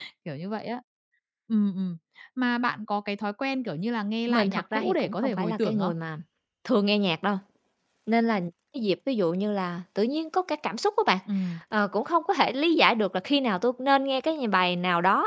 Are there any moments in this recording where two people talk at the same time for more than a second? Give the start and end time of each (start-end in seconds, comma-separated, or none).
4.3-5.9